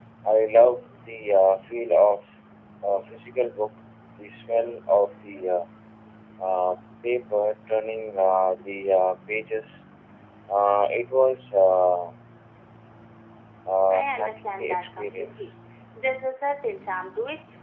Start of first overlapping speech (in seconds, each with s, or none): 13.9 s